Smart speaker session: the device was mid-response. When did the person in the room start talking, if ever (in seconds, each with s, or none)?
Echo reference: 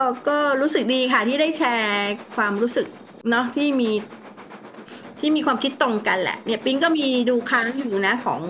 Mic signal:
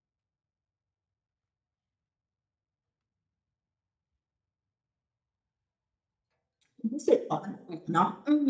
6.8 s